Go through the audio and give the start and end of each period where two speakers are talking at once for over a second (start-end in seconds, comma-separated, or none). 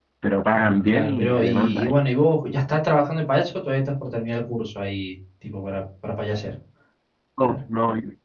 0.5-1.9